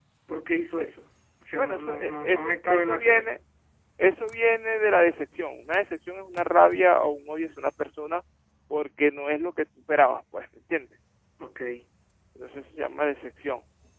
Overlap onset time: 1.6 s

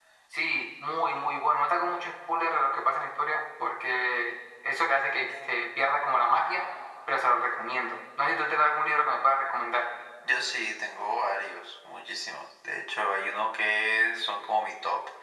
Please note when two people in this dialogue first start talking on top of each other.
none

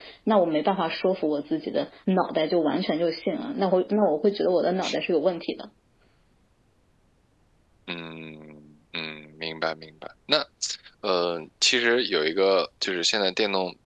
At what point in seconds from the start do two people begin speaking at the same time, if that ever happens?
none

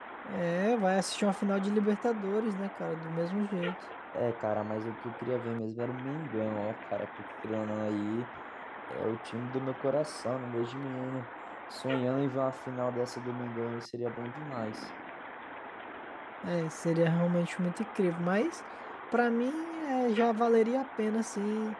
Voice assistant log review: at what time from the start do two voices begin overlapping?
none

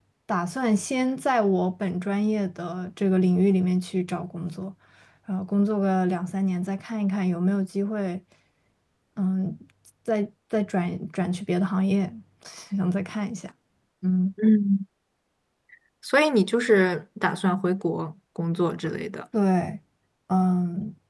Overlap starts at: none

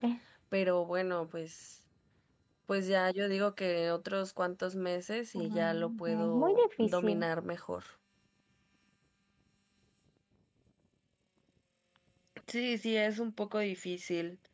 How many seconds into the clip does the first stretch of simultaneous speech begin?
5.4 s

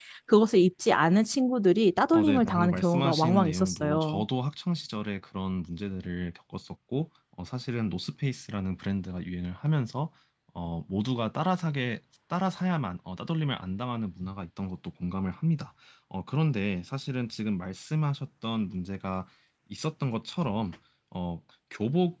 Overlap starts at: 2.1 s

